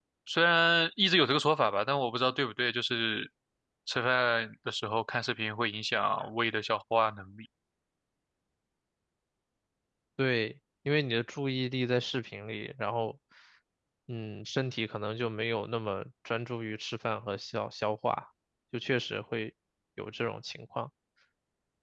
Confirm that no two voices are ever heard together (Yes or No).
Yes